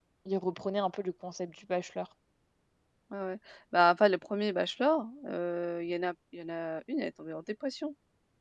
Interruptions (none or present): none